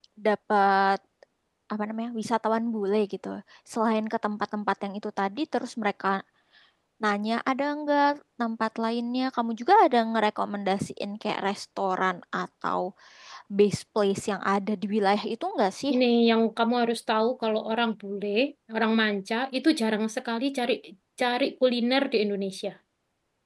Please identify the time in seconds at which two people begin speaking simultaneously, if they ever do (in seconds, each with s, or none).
none